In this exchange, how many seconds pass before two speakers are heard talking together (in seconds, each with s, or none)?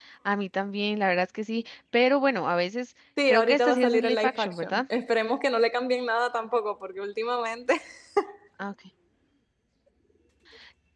3.2 s